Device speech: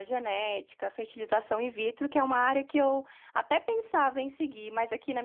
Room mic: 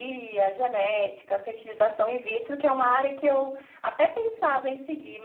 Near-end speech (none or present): none